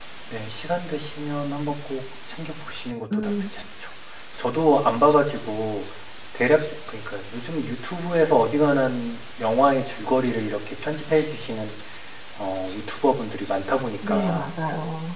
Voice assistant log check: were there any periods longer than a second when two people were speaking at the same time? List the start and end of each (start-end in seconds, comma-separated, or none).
none